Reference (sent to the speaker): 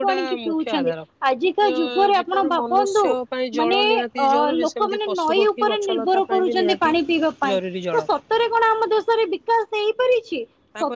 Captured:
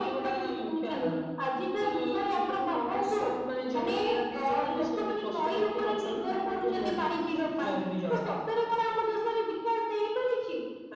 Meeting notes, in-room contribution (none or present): none